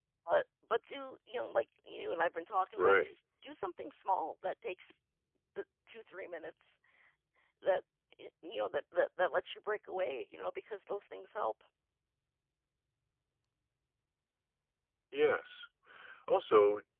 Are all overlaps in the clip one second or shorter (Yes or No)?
Yes